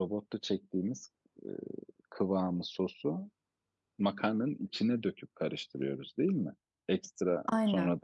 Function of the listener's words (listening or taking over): listening